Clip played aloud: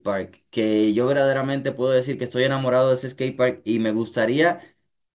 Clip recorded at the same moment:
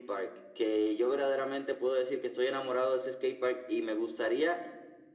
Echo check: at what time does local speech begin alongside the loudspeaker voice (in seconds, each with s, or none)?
none